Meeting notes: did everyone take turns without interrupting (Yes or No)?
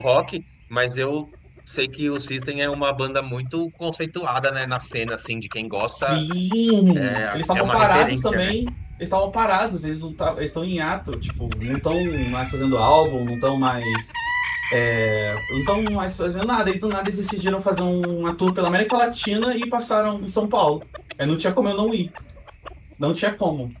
No